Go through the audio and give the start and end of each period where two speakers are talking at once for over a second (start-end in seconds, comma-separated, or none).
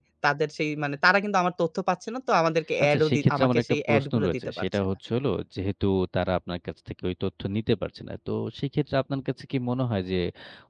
2.8-4.8